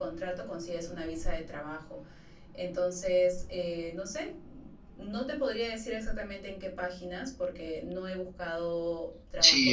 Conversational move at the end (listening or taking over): taking over